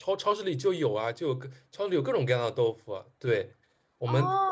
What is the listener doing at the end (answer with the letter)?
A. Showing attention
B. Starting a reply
A